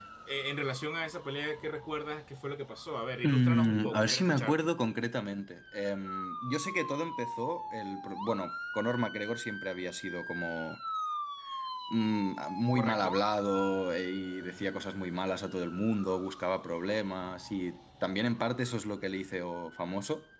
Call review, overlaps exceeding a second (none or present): present